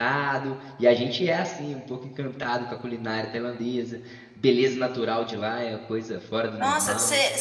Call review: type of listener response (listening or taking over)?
taking over